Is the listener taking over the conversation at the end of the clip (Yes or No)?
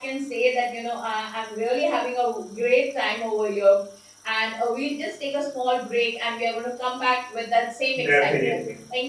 Yes